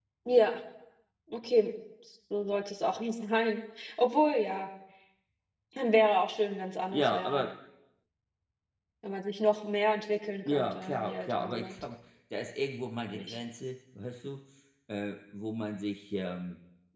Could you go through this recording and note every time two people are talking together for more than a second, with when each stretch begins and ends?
10.4-11.7

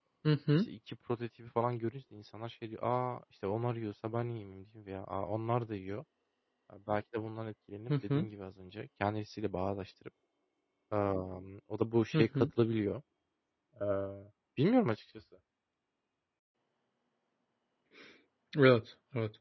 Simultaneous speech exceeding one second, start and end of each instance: none

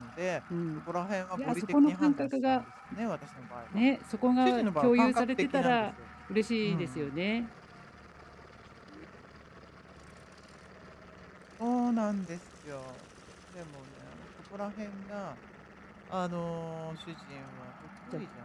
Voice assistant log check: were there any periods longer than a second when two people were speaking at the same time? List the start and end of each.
1.4-2.6, 4.4-5.9

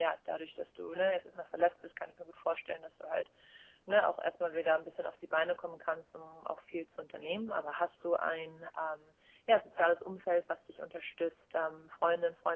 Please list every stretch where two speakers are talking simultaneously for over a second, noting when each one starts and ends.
none

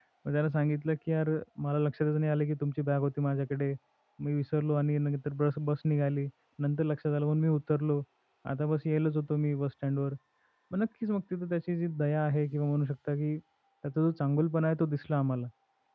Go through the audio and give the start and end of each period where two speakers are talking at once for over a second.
none

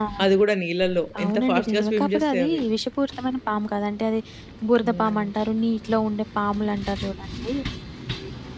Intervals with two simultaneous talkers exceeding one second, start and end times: 1.2-2.6

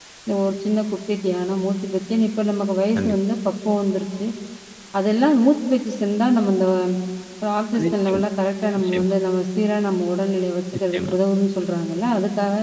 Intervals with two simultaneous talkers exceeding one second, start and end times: none

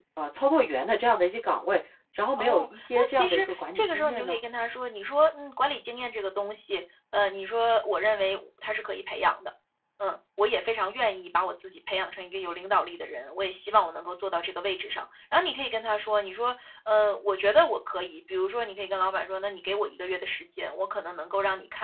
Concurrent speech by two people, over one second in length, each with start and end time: 2.4-4.4

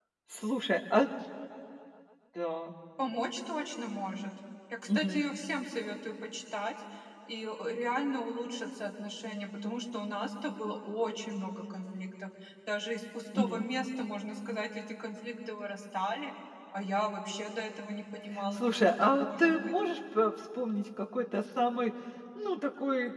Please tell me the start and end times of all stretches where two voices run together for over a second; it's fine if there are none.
18.5-19.7

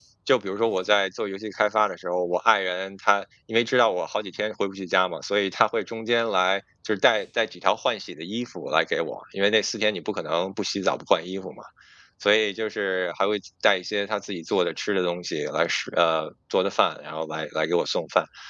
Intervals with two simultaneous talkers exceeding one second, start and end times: none

